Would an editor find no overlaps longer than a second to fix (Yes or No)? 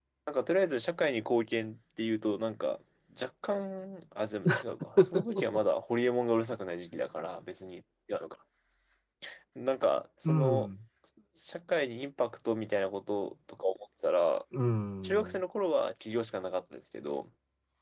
Yes